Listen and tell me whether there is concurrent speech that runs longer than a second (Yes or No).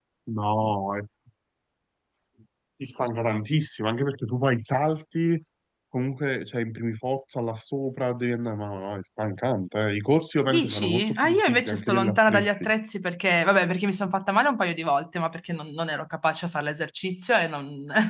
Yes